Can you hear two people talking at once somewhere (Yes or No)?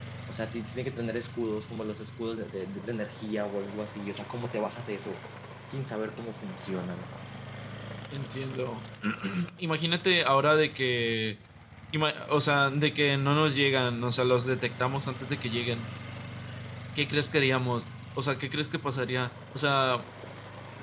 No